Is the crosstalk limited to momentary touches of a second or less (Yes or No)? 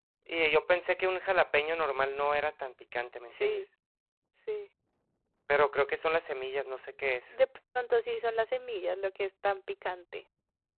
Yes